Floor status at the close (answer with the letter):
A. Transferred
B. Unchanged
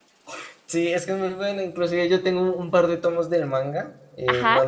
B